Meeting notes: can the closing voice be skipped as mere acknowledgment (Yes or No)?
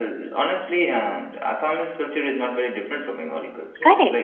No